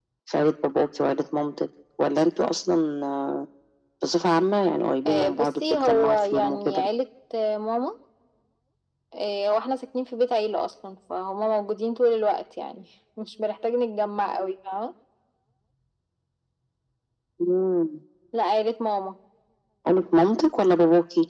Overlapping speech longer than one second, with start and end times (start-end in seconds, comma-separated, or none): 5.1-6.8